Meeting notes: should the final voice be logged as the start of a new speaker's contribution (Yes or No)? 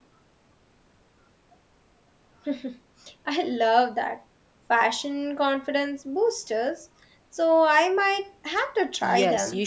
Yes